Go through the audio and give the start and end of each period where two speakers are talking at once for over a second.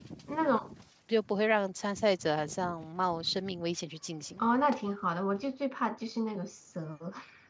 none

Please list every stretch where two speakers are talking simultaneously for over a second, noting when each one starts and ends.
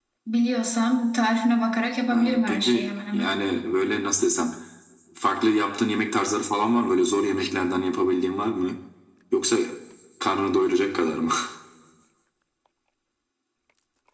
2.1-3.4

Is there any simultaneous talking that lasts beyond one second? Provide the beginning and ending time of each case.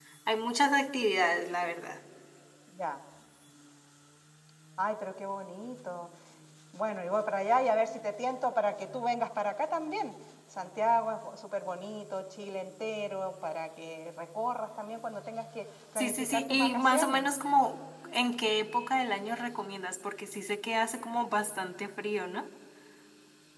16.0-17.3

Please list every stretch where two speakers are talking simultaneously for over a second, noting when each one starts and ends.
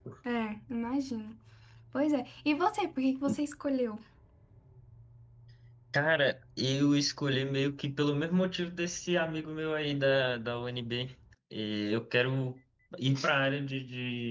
none

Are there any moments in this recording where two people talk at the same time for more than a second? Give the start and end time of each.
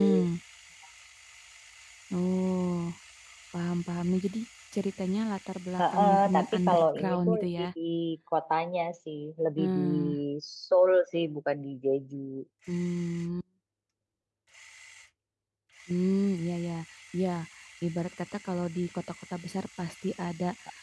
5.8-7.6

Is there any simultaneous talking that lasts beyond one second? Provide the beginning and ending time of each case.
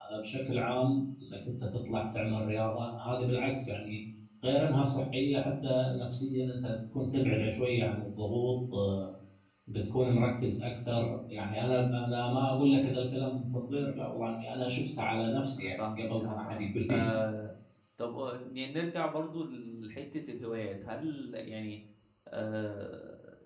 15.6-17.0

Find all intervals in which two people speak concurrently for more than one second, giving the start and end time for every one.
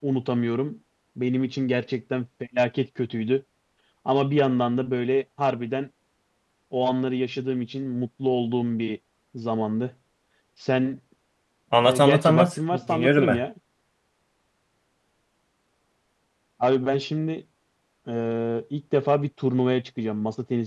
11.8-13.4

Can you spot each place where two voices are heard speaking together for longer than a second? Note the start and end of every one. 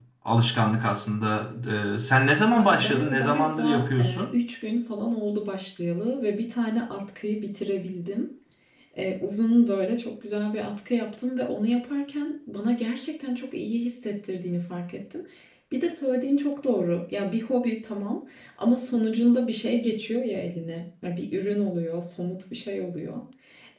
2.5-4.2

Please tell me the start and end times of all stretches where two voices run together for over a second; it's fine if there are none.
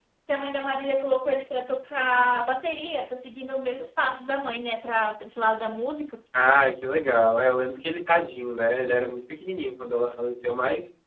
none

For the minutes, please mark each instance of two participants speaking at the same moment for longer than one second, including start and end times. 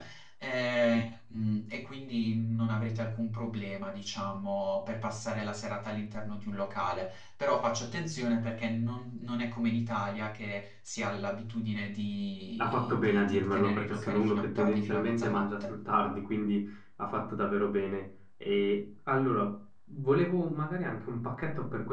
12.6-15.8

